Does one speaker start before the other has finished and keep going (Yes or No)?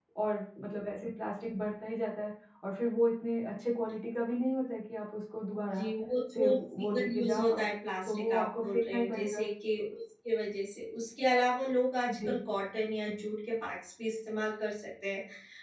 Yes